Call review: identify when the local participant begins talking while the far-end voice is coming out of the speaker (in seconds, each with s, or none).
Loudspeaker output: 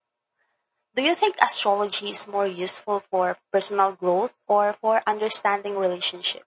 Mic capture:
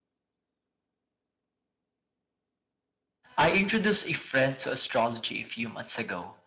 3.4 s